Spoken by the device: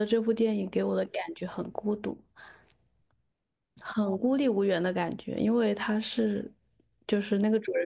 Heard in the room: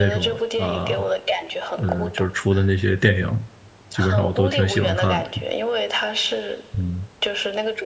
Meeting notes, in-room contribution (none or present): present